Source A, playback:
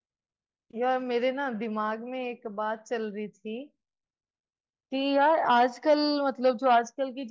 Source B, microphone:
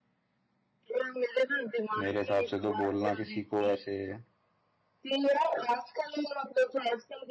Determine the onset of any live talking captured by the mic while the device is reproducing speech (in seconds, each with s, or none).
2.0 s